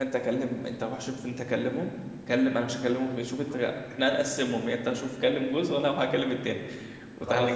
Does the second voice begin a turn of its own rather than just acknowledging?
No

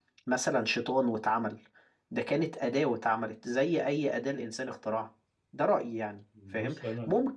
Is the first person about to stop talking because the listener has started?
No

